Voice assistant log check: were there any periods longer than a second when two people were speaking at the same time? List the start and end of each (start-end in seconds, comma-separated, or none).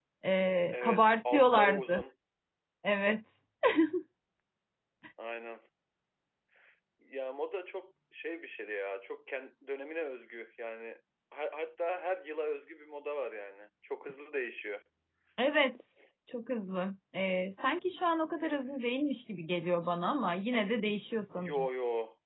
0.7-2.0